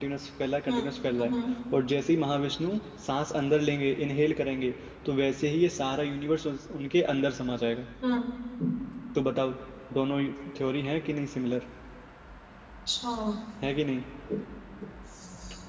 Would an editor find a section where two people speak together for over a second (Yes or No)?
No